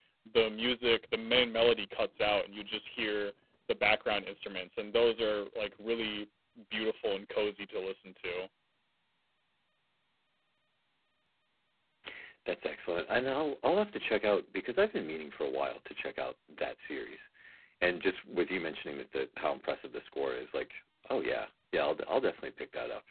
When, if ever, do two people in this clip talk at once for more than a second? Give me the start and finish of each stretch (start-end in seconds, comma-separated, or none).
none